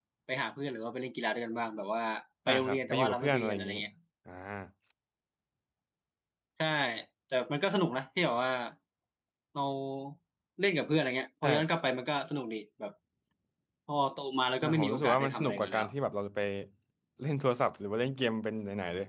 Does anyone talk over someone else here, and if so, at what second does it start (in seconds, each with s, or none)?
2.5 s